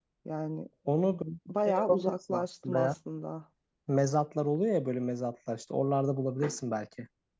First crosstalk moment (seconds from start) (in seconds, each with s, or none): 1.7 s